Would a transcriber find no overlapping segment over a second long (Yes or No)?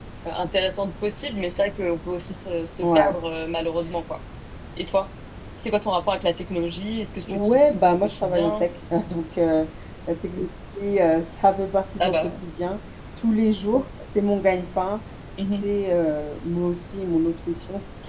No